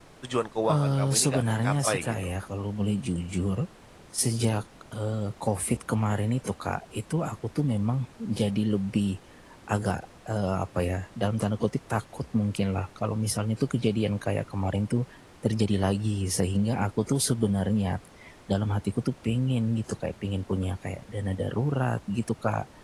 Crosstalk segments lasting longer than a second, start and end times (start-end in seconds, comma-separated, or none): 0.7-2.2